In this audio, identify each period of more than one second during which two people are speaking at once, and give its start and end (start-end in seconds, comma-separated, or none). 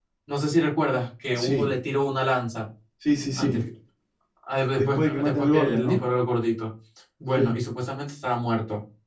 4.7-6.0